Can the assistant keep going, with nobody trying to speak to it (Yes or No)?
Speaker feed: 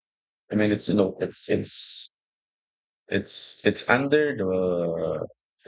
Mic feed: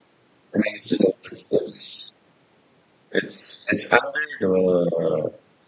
Yes